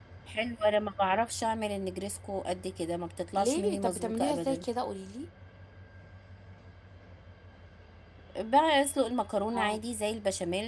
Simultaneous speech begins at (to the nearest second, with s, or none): 3 s